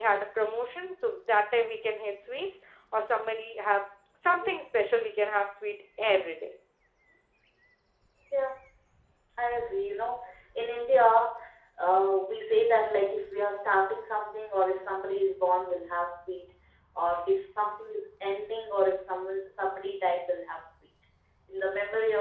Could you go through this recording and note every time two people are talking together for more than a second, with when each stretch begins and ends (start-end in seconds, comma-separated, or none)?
none